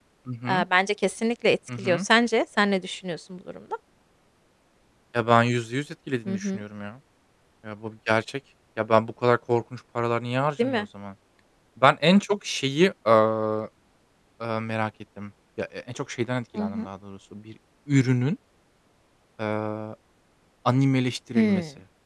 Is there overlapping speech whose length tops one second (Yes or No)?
No